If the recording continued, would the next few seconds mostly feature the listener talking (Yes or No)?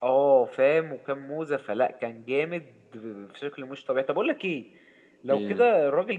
No